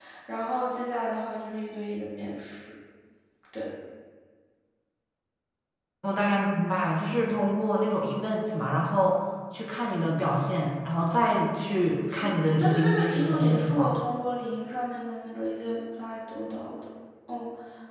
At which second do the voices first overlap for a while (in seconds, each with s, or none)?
12.1 s